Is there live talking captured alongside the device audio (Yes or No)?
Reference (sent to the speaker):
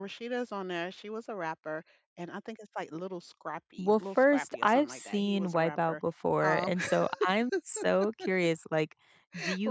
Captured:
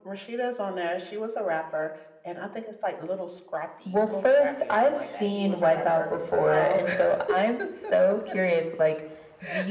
No